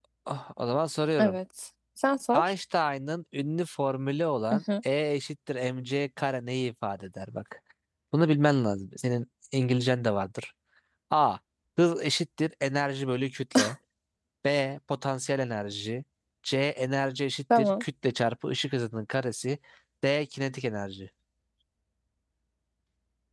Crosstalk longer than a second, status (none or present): none